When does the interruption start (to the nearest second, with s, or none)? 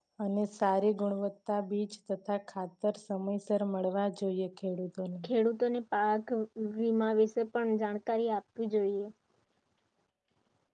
none